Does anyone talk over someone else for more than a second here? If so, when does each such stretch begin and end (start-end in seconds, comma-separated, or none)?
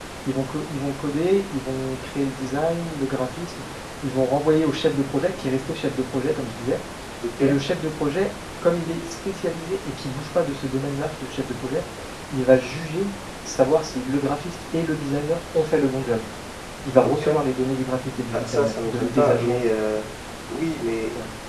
18.3-19.6